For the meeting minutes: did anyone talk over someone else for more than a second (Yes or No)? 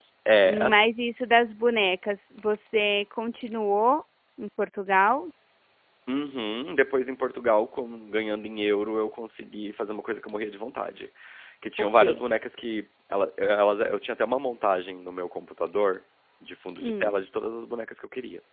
No